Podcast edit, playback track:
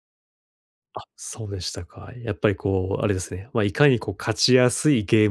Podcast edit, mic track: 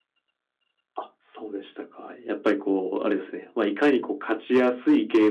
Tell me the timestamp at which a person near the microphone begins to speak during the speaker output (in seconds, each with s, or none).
none